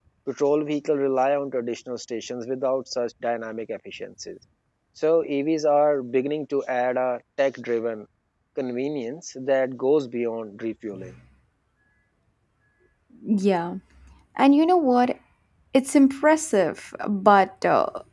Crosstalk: none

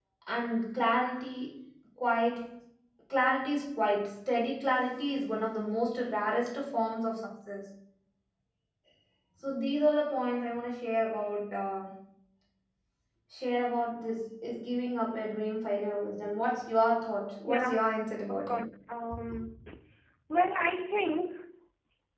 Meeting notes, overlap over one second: none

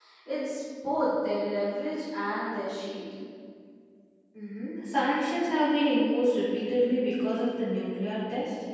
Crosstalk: none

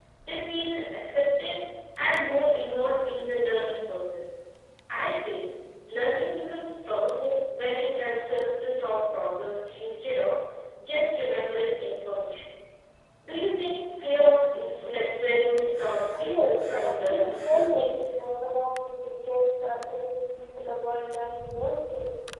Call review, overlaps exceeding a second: present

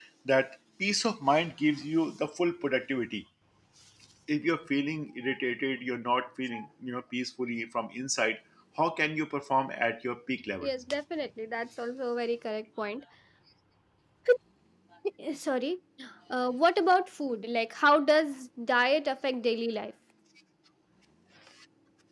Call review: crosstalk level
none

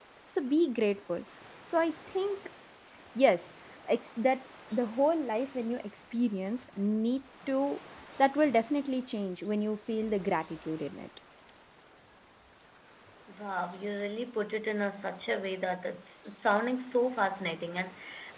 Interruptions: none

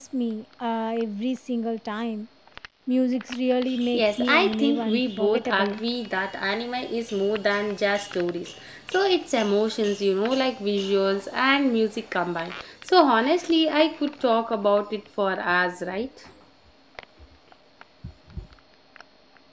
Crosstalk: present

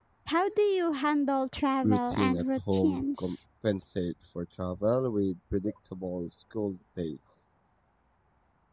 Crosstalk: present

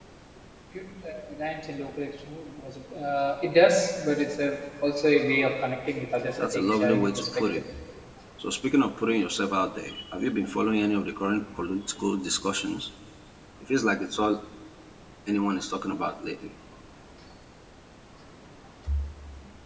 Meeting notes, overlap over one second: present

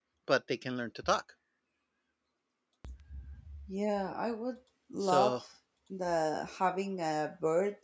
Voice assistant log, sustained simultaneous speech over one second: none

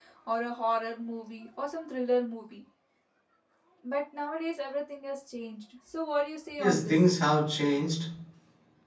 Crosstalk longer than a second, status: none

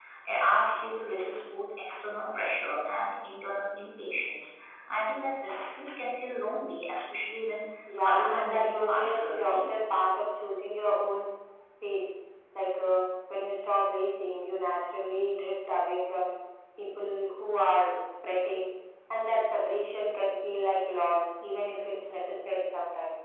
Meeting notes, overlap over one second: present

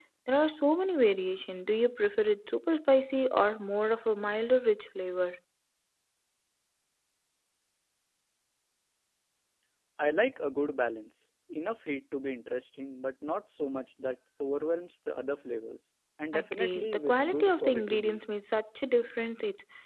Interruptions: present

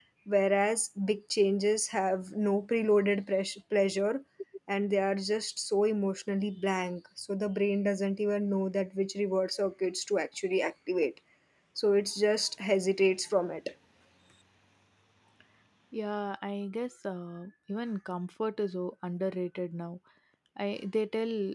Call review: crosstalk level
none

